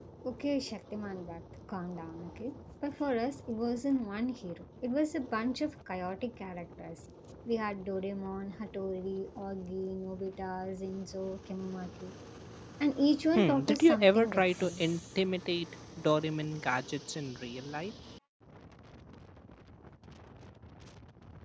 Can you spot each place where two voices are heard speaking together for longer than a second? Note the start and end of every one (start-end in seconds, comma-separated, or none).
13.3-14.8